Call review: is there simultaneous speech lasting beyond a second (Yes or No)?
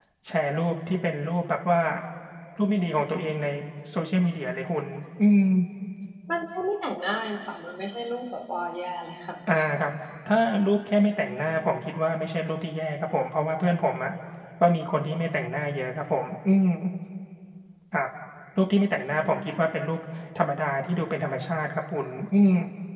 No